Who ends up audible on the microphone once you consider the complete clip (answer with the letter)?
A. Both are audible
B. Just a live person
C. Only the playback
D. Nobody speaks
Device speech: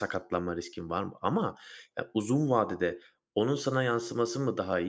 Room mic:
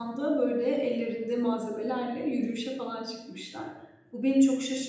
B